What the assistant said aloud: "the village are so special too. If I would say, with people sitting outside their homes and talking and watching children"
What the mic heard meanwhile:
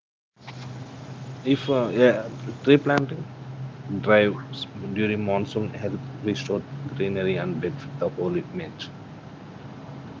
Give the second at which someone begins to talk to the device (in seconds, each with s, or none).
1.5 s